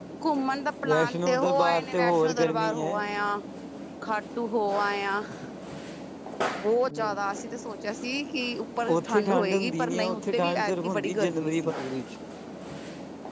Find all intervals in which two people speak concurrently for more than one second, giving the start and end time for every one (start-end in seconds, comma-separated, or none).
0.8-2.9, 8.9-11.7